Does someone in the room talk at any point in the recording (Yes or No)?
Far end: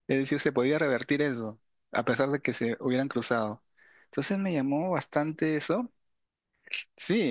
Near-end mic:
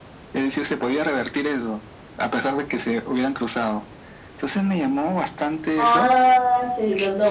Yes